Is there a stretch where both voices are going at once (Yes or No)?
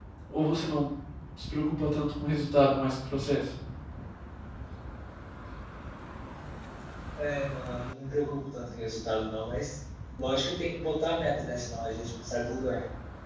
No